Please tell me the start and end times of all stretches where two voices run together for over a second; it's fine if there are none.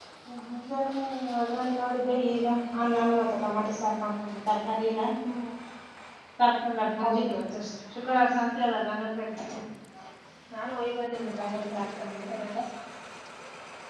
11.0-12.2

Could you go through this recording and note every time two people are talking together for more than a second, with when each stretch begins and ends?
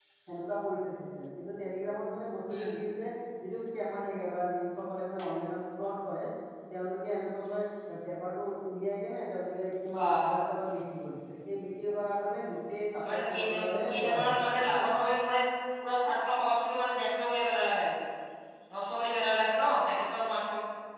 13.1-14.4

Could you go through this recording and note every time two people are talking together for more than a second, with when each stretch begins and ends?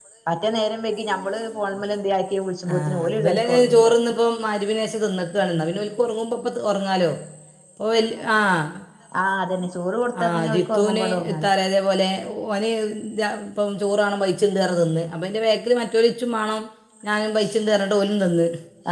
2.8-4.0, 10.2-11.5

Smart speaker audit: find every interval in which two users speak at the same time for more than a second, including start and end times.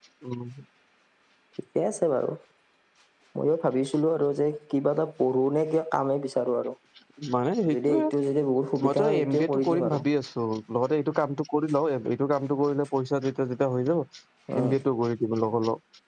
8.8-10.0

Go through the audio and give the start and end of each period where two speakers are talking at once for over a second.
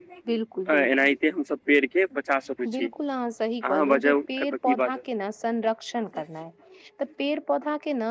3.7-5.0

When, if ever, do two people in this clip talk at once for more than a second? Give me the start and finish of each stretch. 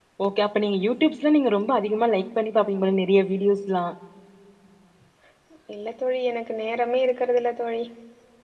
none

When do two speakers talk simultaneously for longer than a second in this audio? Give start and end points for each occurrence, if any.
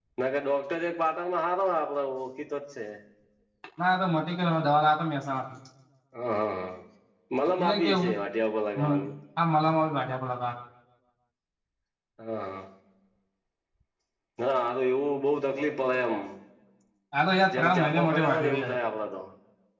17.6-18.8

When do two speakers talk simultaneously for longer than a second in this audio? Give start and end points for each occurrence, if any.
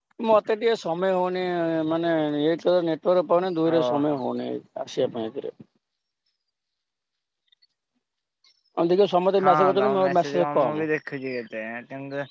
9.4-10.8

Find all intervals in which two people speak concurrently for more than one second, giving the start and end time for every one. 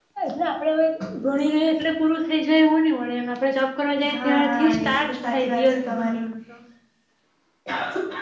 4.1-6.2

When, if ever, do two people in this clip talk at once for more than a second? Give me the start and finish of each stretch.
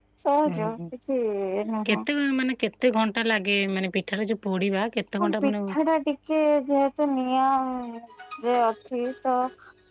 none

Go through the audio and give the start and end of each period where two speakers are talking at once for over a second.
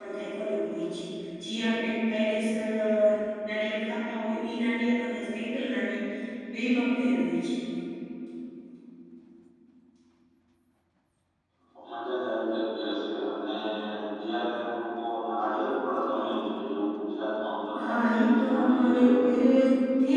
17.8-19.4

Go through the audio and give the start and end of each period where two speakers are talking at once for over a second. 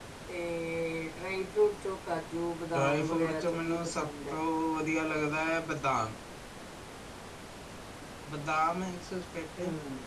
2.7-4.4

